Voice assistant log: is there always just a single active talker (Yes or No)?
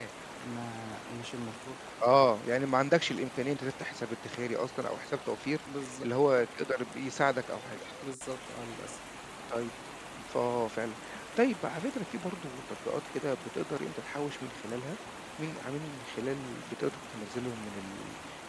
Yes